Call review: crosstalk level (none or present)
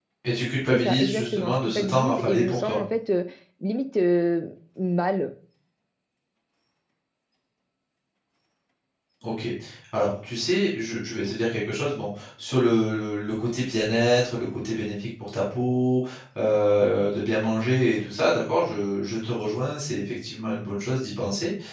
present